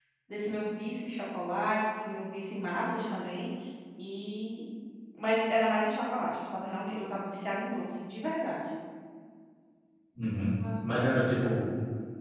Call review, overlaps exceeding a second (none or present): none